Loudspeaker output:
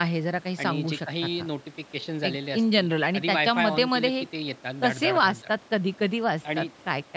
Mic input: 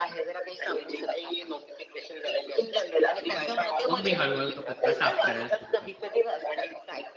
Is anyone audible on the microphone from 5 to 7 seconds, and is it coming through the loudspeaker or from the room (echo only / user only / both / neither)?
both